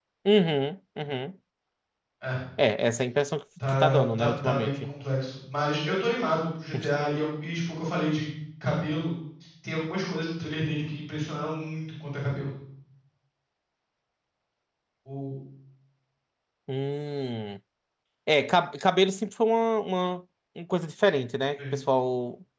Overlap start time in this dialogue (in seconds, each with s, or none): 3.7 s